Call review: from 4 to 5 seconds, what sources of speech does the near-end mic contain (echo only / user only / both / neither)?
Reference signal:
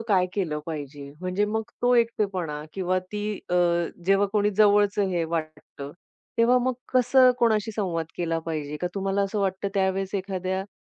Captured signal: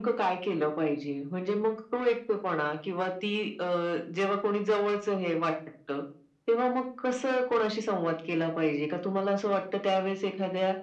echo only